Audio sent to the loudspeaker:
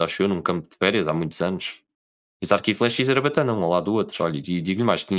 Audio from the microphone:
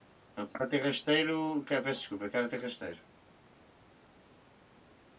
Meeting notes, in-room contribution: present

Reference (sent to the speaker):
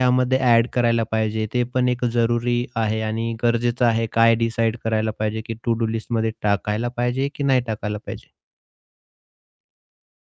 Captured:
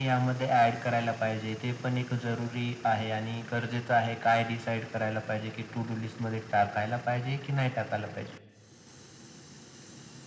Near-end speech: none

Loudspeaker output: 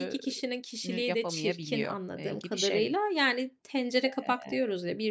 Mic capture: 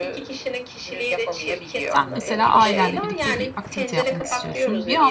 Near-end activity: present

